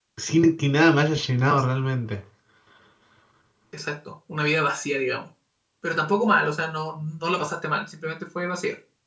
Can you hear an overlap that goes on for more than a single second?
No

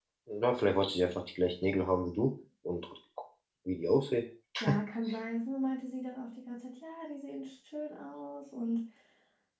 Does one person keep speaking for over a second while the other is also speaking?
No

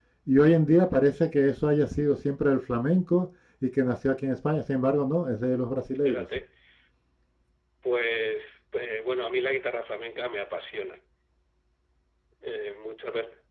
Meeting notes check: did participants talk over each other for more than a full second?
No

